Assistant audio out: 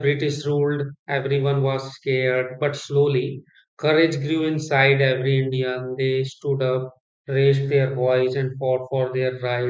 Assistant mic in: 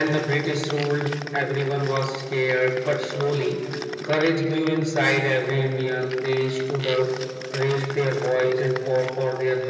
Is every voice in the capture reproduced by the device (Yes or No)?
Yes